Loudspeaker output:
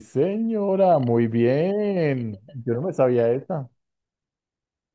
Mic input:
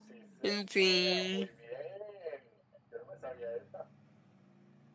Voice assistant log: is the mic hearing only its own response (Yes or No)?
No